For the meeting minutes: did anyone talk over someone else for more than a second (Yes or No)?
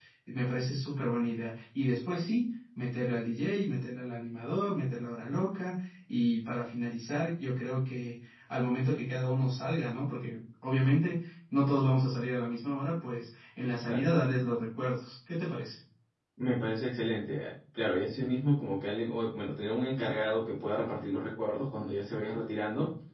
No